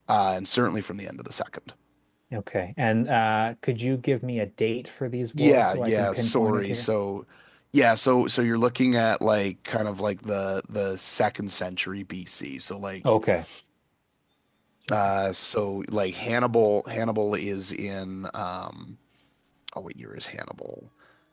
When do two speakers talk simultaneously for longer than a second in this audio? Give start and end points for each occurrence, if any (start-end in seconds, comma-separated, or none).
5.4-6.9